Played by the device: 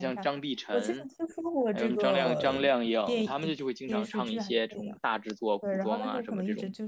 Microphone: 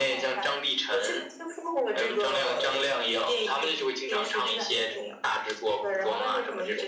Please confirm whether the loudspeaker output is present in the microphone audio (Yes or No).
Yes